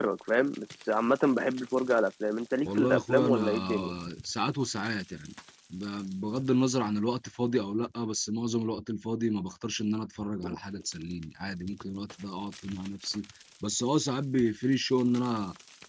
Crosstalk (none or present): present